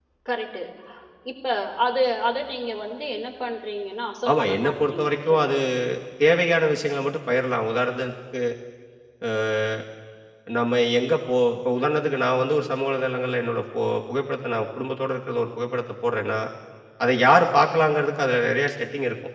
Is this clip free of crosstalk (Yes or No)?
No